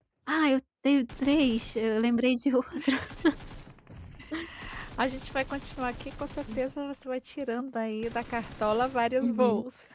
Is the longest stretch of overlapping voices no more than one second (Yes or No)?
Yes